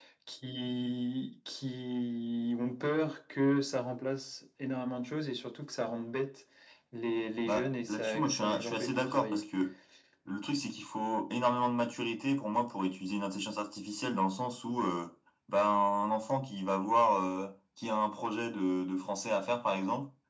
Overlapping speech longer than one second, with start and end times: 7.5-9.4

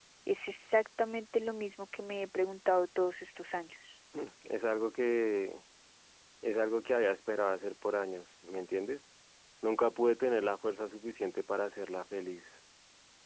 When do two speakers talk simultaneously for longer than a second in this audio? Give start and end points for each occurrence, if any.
none

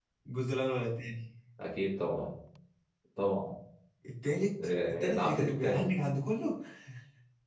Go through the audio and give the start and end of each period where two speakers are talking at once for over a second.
4.6-5.9

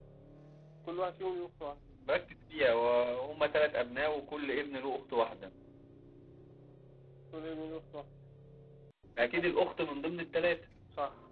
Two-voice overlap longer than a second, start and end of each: none

